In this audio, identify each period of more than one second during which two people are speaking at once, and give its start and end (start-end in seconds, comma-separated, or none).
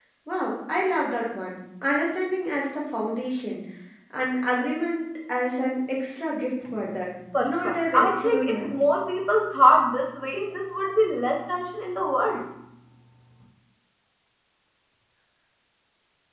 7.4-8.7